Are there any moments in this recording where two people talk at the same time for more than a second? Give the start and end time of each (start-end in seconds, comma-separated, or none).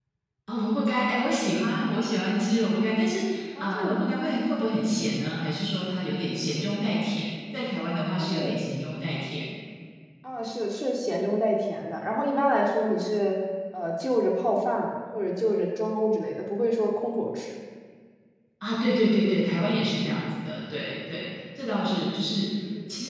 none